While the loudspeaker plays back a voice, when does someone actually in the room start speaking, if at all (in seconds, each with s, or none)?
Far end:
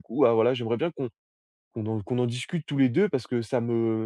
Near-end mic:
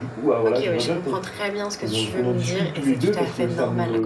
0.4 s